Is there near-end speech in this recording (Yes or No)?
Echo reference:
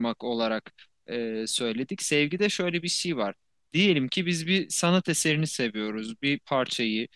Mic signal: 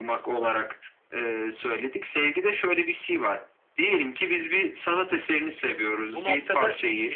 Yes